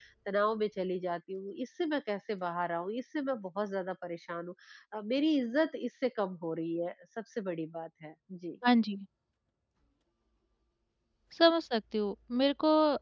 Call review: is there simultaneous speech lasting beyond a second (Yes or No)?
No